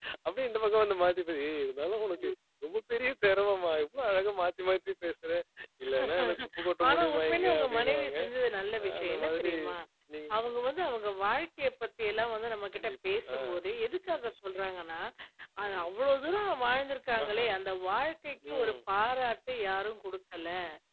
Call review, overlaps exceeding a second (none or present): present